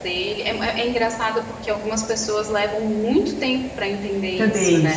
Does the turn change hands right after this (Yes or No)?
Yes